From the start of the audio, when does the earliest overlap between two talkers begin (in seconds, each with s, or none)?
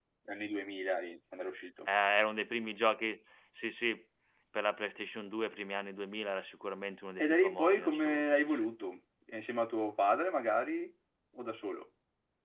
7.2 s